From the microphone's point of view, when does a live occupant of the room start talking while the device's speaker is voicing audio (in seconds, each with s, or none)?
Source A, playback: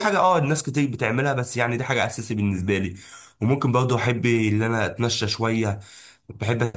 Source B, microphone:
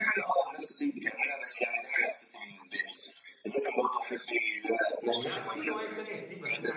5.1 s